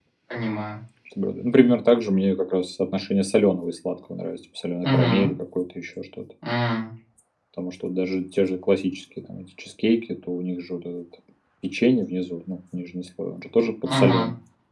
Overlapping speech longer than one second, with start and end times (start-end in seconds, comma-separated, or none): none